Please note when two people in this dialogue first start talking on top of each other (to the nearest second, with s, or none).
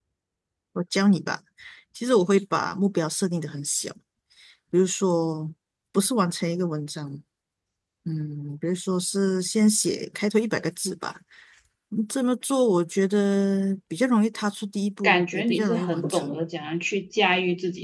15 s